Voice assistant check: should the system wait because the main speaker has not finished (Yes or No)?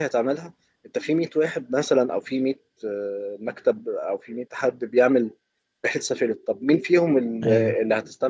Yes